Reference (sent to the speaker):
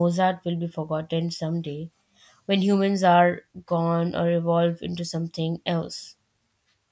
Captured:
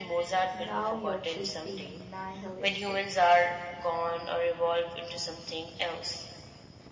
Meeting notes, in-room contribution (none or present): present